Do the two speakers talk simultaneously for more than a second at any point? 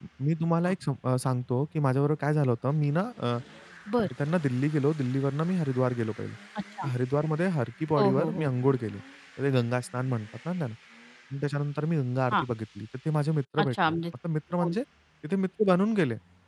No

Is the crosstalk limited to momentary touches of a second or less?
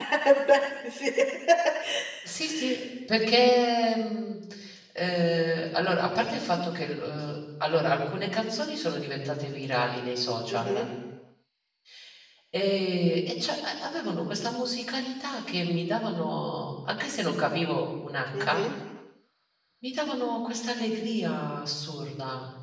Yes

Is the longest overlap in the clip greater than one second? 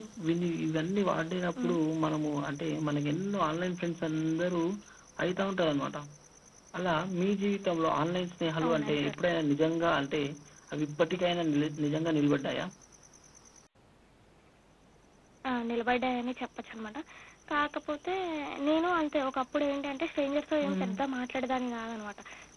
No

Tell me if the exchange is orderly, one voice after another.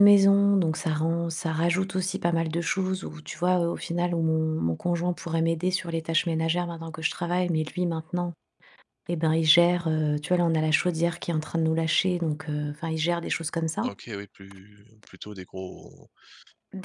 Yes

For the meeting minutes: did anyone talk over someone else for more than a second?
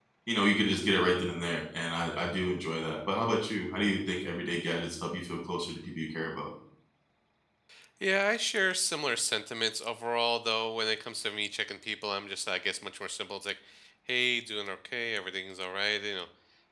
No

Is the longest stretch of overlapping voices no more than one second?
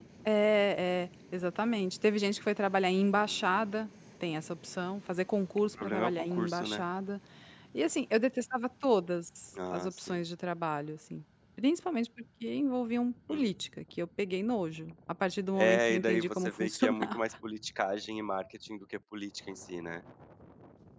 No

